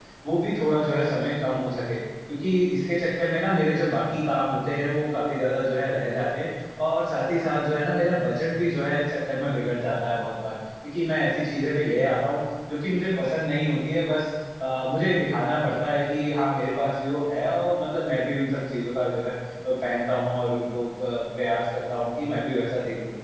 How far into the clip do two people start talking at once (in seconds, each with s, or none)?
none